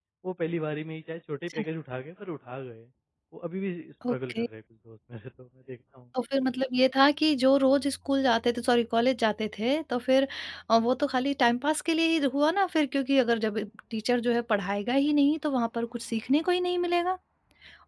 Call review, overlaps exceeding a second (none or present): none